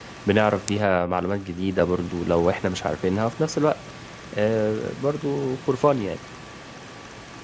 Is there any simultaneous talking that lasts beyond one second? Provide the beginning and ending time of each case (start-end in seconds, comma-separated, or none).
none